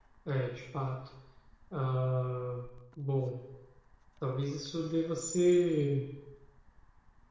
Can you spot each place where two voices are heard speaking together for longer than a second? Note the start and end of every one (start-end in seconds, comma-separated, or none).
none